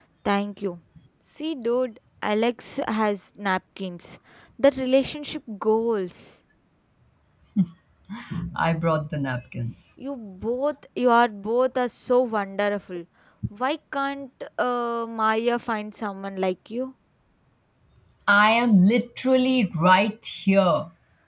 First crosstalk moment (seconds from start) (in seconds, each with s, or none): none